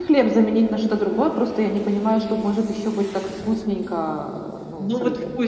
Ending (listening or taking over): taking over